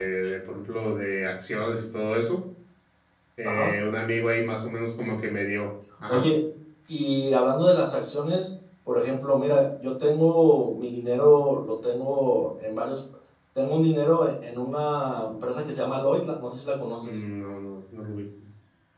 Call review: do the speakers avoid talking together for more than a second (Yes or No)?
Yes